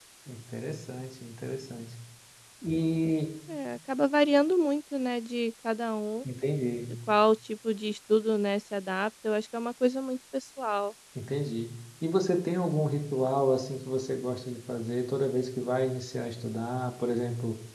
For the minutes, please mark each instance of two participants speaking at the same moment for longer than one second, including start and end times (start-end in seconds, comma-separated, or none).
none